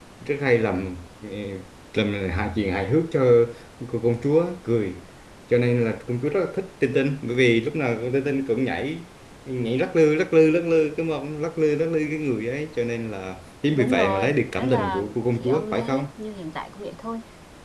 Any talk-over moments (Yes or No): Yes